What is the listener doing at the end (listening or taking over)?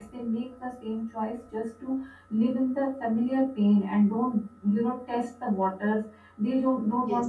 listening